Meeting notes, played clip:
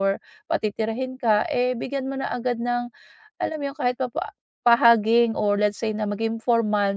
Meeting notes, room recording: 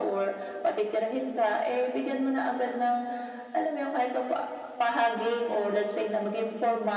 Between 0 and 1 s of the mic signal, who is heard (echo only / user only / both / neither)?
echo only